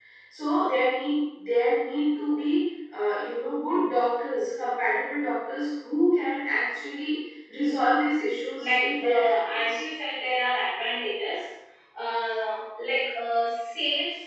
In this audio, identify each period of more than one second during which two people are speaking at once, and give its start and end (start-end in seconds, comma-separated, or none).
8.5-9.8